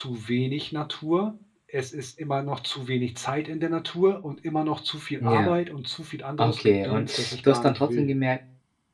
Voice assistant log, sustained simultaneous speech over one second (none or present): present